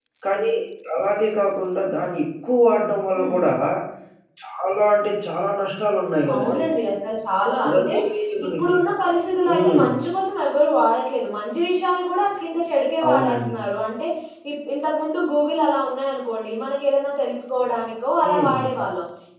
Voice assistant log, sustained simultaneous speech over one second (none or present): none